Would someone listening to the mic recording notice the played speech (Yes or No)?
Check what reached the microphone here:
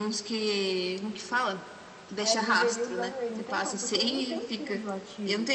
Yes